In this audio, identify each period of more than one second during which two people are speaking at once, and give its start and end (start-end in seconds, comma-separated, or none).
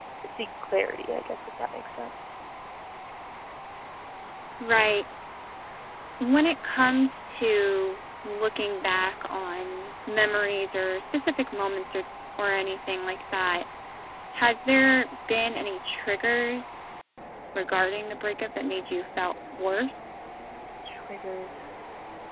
none